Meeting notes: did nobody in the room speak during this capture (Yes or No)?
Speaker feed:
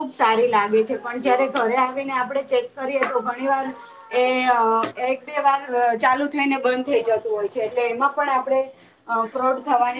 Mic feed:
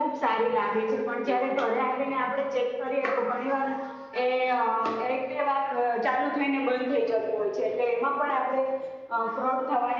Yes